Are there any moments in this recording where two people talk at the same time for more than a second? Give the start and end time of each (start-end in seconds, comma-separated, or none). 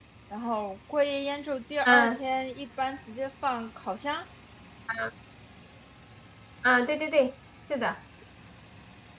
none